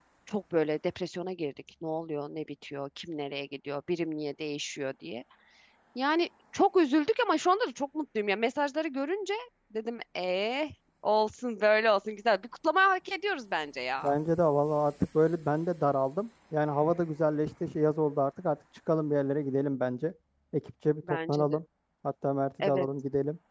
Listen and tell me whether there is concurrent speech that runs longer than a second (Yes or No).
No